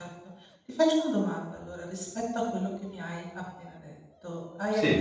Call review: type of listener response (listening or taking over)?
listening